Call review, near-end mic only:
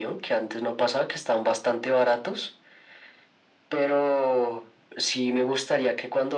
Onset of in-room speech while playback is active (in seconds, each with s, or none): none